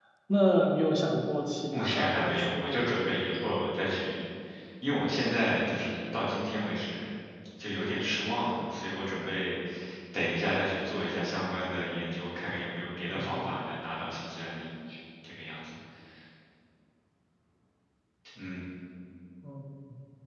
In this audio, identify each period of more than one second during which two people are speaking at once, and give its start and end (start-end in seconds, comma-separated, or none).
1.7-2.9